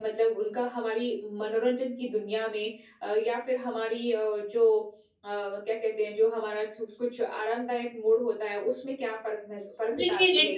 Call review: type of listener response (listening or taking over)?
taking over